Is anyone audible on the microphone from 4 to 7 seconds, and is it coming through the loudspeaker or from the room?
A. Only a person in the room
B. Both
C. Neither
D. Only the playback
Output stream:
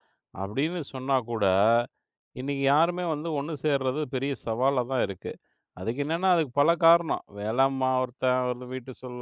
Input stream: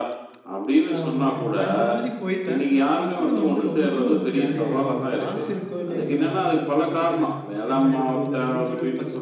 B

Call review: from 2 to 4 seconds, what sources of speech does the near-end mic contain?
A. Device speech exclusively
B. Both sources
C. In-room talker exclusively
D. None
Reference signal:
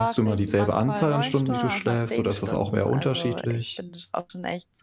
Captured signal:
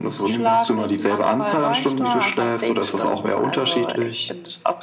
A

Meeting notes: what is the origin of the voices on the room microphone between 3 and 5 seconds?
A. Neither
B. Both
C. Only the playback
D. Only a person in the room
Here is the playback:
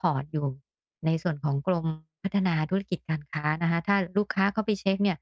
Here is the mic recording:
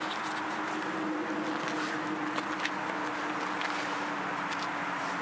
A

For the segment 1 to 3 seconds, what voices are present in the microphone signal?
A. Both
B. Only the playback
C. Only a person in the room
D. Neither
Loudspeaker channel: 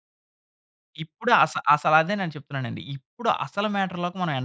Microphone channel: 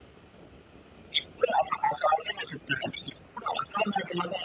B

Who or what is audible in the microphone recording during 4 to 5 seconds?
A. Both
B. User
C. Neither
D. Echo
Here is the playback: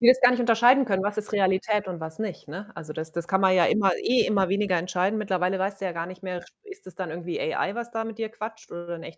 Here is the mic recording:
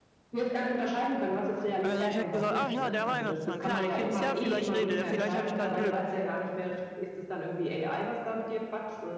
A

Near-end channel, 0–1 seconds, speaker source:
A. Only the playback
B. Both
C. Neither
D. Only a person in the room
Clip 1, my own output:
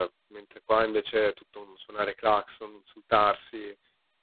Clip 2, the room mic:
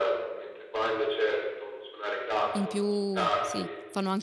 A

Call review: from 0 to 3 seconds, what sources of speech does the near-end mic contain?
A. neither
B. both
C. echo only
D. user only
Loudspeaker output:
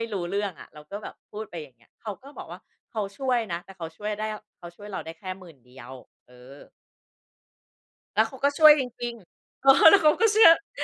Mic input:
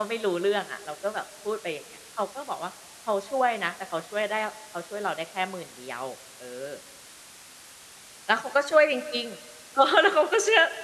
C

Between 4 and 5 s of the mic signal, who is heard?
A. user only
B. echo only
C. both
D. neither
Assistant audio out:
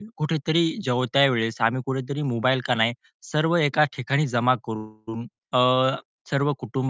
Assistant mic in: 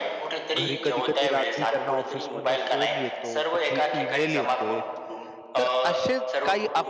C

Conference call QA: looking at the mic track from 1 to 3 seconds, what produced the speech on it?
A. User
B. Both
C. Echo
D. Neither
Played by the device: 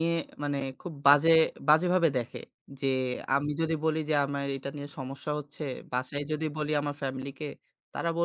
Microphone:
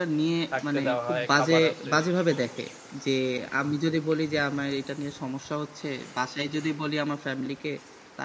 B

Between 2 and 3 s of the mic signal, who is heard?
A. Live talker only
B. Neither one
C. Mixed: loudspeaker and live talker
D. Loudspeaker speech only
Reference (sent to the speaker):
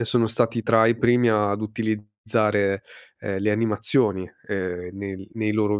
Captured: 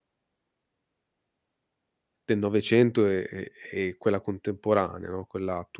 A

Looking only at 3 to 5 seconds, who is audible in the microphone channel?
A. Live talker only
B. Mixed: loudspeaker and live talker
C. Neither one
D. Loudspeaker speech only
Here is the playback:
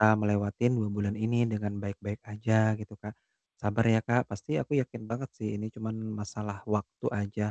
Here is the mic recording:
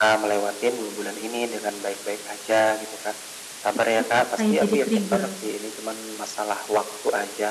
B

